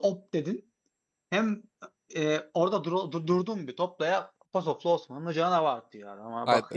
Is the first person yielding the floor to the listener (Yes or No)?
Yes